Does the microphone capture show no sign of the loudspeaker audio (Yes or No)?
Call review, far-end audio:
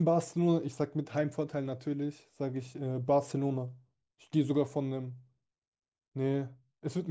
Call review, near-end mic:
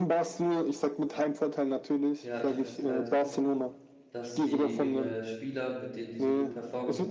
No